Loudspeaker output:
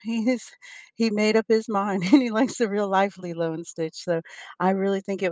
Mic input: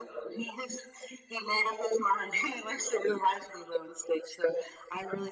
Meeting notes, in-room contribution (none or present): none